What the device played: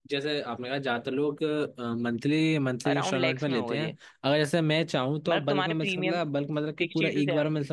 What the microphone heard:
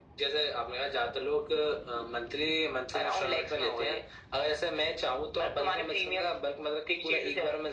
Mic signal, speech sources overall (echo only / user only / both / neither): echo only